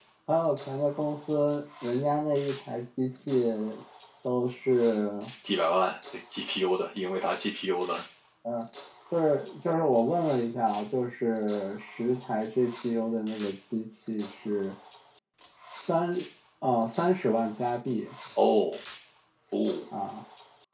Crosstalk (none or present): none